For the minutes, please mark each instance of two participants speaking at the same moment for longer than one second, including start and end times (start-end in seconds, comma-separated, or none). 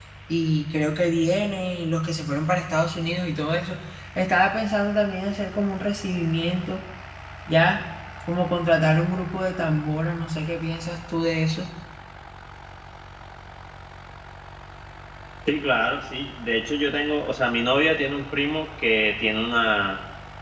none